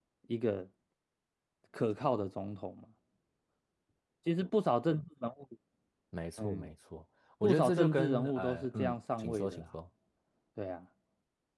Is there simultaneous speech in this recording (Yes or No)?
Yes